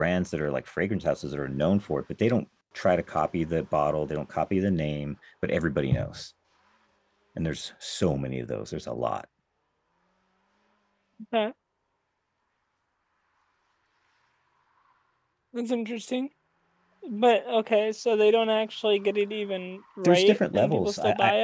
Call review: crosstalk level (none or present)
present